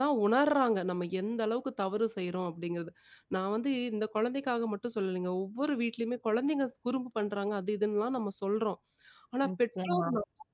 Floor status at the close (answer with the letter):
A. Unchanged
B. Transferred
A